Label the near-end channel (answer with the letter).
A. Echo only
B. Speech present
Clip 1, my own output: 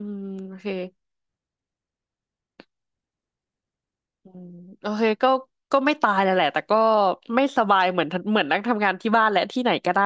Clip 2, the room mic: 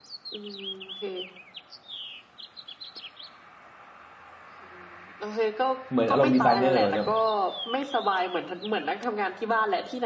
B